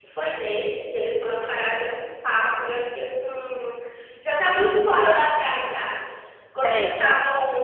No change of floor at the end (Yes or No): Yes